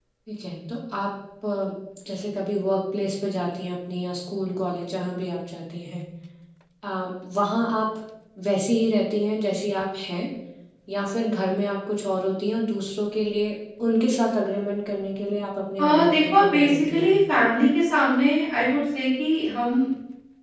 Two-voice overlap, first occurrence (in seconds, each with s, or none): 15.8 s